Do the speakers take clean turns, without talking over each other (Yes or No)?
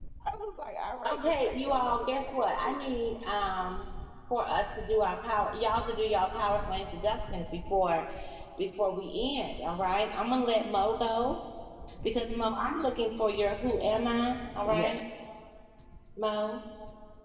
No